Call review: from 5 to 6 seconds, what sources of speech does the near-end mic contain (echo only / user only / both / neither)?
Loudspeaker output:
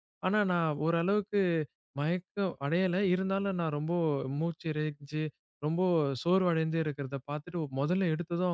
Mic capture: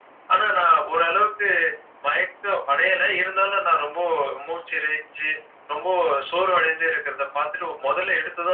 echo only